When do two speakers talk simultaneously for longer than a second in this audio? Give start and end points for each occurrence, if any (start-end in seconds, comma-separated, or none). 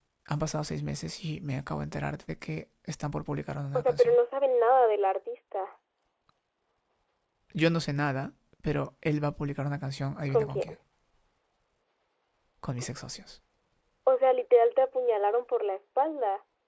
none